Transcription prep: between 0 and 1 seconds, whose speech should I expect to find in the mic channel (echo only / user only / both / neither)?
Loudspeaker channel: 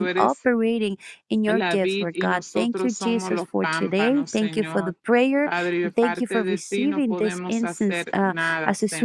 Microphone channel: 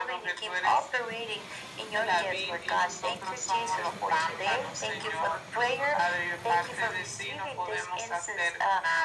echo only